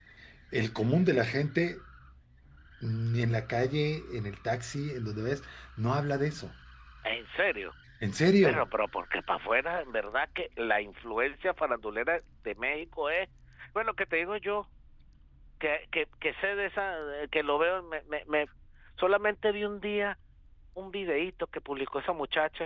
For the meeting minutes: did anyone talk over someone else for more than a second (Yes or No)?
No